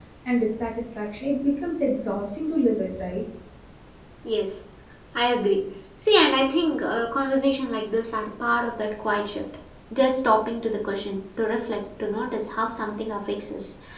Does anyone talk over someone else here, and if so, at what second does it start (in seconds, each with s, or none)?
none